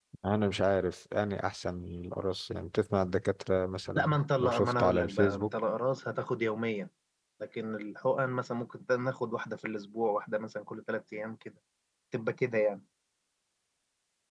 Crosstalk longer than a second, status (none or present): present